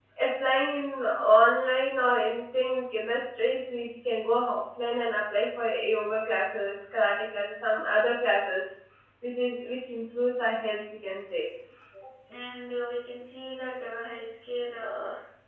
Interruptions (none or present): none